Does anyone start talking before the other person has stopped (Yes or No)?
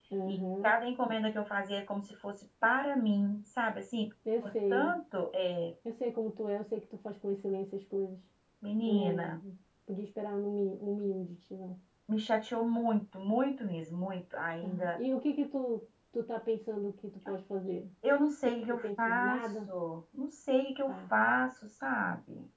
Yes